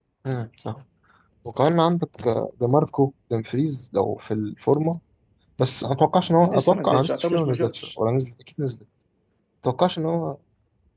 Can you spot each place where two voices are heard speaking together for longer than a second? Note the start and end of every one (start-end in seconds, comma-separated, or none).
6.4-7.9